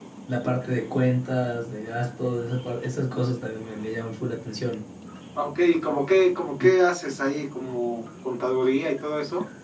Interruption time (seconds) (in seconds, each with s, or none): none